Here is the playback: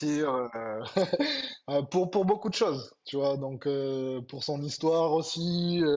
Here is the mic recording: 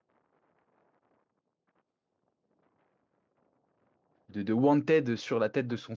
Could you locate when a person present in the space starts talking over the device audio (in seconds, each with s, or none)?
4.3 s